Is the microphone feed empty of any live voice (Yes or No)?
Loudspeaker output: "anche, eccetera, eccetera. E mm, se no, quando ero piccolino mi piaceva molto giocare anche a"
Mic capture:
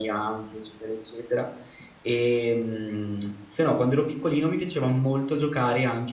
Yes